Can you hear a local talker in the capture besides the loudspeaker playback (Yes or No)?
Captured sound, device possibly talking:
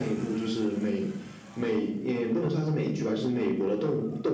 No